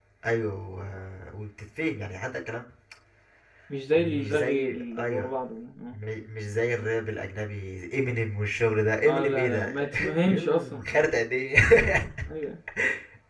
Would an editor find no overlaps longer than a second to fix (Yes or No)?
No